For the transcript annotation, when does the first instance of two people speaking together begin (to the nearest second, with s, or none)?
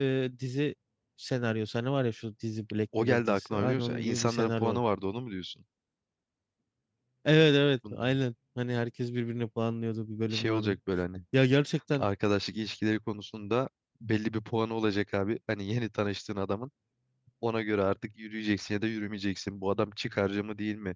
3 s